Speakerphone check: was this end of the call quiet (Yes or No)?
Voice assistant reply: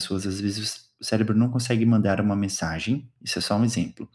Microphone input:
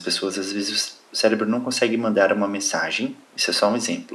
Yes